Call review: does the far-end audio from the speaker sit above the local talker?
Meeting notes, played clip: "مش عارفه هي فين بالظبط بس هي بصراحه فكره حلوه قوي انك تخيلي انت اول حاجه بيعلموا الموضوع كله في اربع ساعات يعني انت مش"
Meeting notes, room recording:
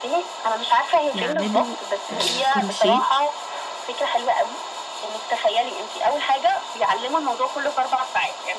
Yes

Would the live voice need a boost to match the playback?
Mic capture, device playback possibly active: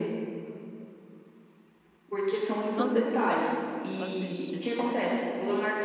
Yes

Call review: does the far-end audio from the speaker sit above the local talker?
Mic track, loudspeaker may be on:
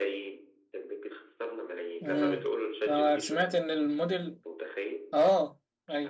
No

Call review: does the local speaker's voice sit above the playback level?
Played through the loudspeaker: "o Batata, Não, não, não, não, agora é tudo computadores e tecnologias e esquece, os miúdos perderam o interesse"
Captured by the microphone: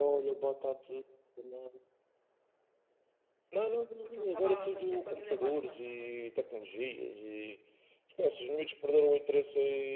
No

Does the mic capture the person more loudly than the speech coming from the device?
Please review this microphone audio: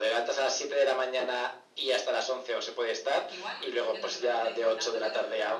No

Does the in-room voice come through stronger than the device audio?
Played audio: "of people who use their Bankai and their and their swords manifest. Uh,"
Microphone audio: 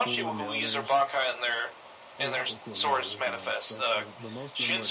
No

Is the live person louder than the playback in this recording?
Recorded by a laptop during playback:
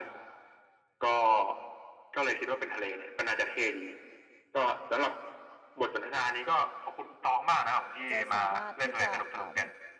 No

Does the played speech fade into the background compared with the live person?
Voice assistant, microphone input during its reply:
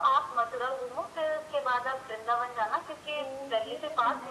No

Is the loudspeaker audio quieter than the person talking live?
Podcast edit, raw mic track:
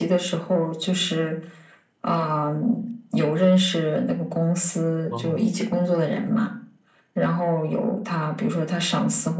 No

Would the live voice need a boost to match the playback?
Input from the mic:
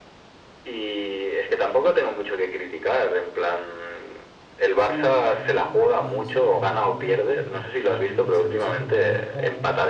Yes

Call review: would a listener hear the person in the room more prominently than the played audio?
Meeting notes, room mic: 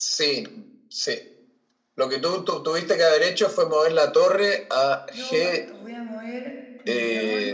No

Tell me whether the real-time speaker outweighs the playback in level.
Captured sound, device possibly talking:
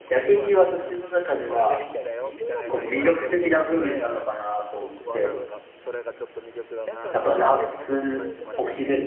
Yes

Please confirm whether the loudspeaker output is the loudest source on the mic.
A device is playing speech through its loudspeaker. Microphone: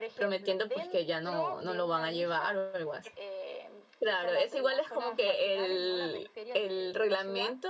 No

